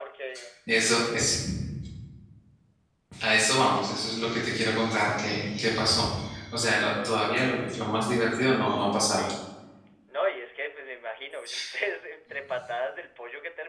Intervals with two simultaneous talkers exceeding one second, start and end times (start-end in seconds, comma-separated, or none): none